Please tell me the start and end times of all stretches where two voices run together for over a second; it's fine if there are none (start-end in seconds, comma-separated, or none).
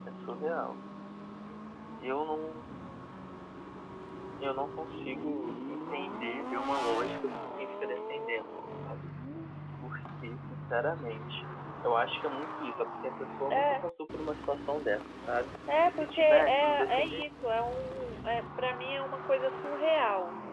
15.9-17.3